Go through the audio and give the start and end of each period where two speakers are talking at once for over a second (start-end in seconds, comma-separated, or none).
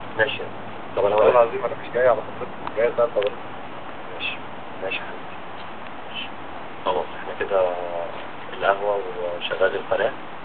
none